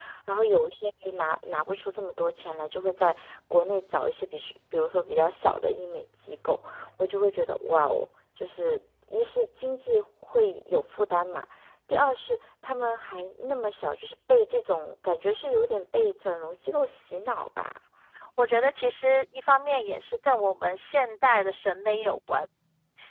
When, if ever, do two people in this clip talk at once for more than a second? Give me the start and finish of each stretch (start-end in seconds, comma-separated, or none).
none